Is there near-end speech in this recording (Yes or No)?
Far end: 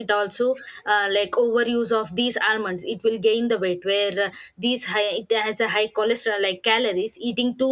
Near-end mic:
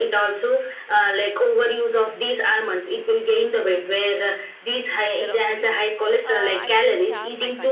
Yes